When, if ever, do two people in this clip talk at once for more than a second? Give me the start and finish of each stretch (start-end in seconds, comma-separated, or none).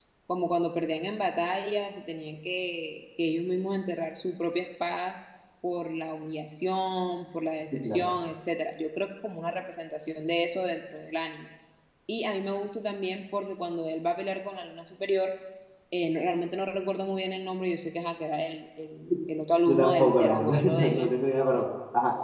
19.7-21.1